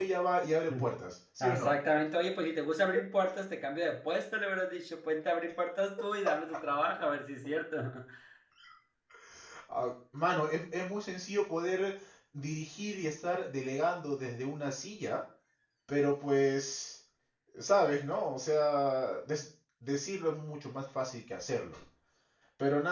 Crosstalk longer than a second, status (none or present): none